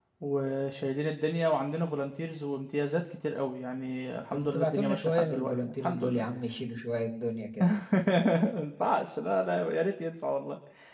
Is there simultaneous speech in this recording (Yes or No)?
Yes